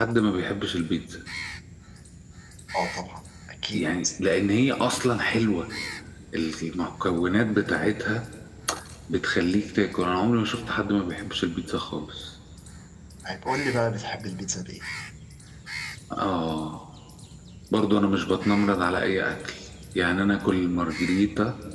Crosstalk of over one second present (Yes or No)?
No